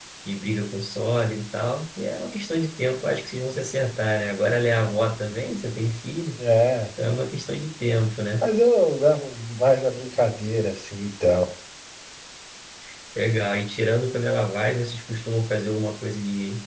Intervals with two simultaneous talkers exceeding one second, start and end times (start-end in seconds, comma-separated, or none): none